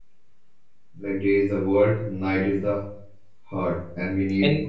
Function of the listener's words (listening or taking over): listening